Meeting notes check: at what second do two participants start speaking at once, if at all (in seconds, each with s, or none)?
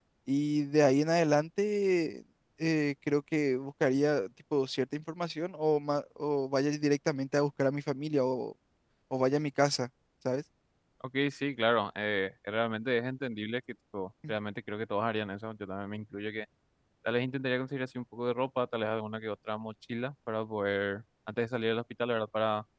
none